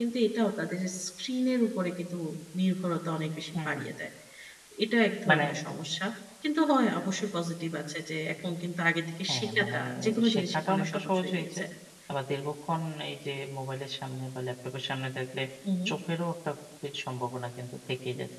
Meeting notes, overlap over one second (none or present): present